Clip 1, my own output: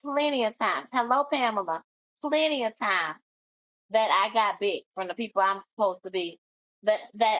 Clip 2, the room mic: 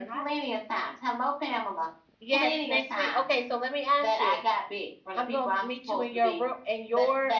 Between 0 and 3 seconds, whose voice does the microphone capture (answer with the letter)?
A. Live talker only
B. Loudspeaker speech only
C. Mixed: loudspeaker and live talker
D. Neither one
C